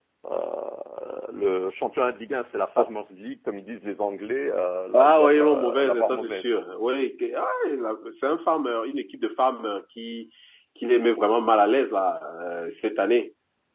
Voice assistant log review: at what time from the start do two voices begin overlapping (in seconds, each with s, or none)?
4.9 s